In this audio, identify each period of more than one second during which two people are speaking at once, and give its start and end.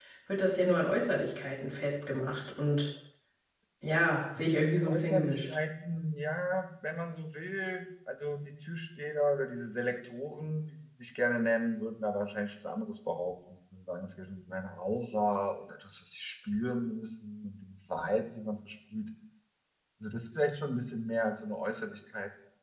4.4-5.6

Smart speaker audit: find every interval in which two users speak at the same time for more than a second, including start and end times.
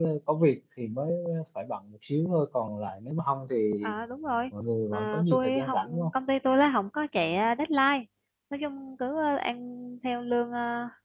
4.9-6.1

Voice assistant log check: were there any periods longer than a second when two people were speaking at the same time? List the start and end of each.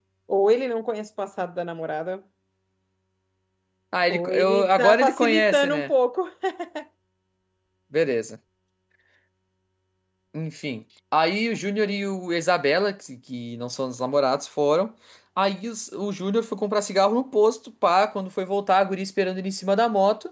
4.1-5.9

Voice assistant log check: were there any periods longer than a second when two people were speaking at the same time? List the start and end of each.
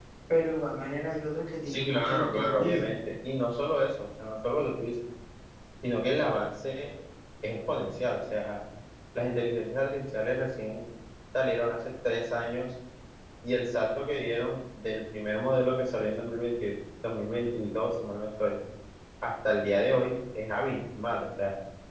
1.7-2.9

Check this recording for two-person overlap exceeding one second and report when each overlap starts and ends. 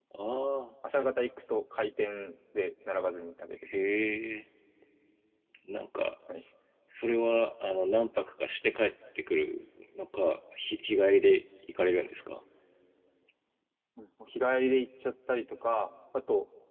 none

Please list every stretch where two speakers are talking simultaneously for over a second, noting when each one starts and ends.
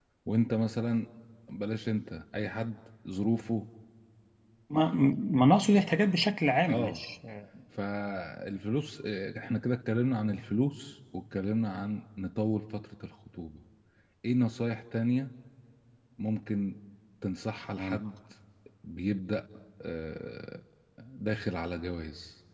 none

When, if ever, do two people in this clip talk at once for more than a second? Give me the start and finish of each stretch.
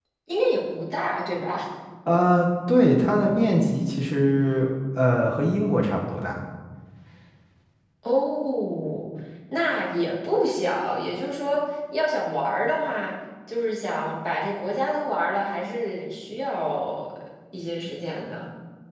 none

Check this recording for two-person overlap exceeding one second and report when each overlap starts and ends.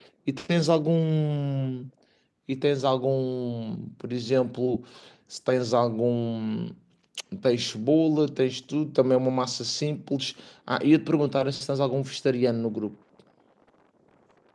none

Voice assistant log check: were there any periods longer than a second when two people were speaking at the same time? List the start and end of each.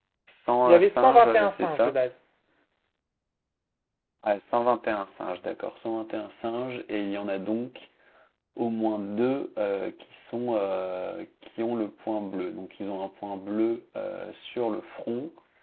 0.7-1.9

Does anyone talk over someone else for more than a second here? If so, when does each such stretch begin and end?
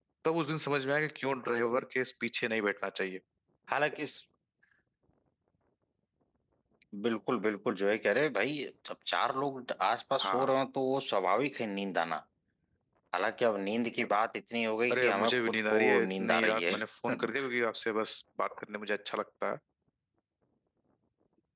14.9-16.8

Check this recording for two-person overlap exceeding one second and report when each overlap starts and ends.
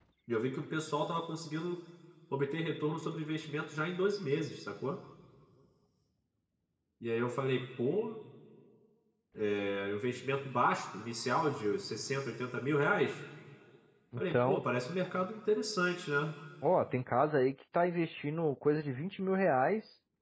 none

